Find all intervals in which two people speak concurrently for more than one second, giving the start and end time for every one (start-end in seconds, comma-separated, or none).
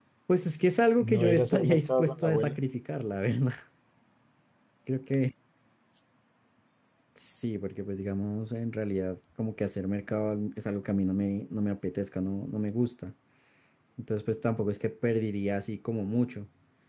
1.1-2.6